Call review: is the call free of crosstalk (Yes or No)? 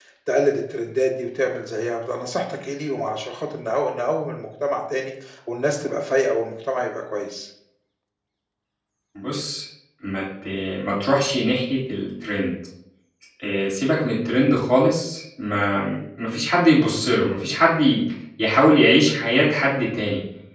Yes